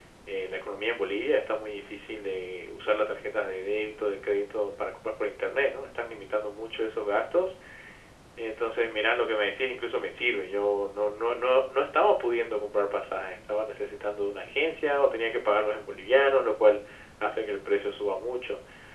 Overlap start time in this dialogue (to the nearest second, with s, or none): none